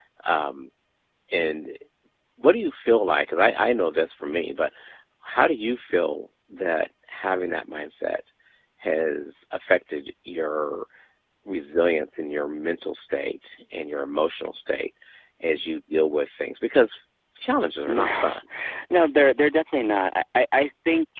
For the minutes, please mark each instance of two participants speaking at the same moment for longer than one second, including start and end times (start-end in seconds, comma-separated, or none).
none